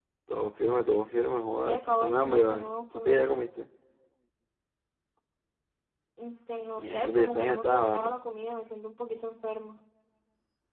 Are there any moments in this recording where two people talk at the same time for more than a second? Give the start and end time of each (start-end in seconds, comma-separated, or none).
1.6-3.2, 6.8-8.2